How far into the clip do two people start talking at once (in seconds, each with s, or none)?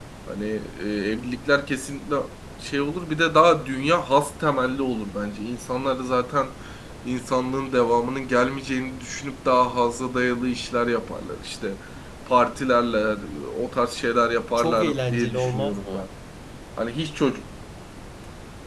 14.6 s